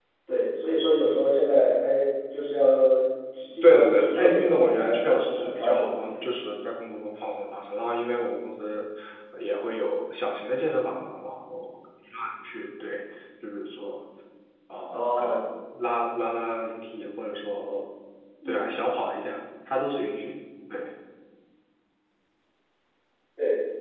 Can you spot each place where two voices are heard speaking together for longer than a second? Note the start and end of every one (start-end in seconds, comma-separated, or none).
3.6-6.2